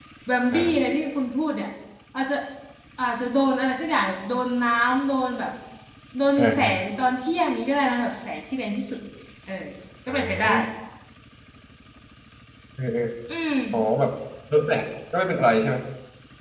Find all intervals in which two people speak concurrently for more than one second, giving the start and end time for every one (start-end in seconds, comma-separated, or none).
none